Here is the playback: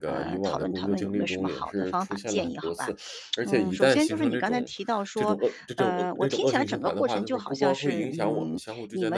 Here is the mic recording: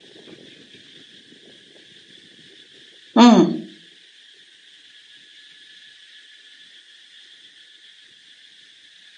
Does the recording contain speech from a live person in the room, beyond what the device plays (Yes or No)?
Yes